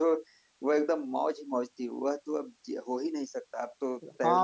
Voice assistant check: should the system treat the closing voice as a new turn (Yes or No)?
Yes